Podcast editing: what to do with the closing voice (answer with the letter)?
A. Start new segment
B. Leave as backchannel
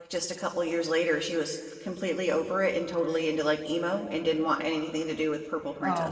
A